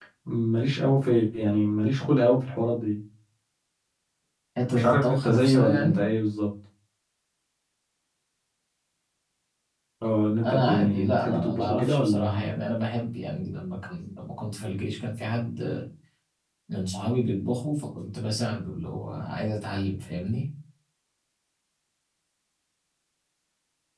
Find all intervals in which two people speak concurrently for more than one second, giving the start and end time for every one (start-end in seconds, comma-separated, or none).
4.7-6.0, 10.4-12.5